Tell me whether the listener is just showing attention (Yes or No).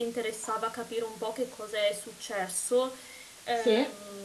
Yes